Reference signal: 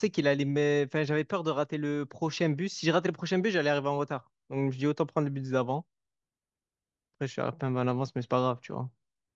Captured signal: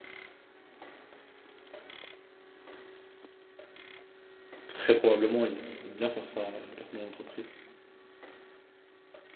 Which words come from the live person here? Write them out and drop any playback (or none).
Très probablement, ils, ils aiment bien faire ça, les personnes de l'entreprise.